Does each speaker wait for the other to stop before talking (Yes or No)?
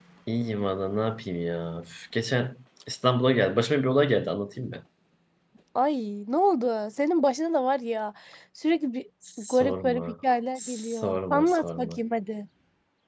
No